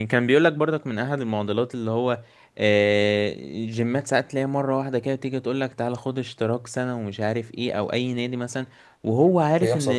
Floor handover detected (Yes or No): No